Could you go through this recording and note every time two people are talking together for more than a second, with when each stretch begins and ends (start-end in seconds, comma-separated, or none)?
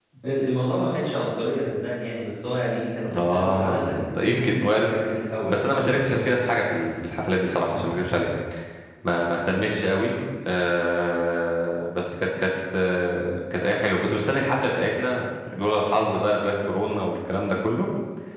3.1-4.9